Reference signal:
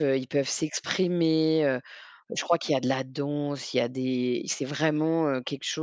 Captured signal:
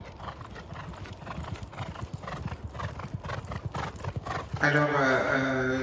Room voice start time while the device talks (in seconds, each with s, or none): 4.6 s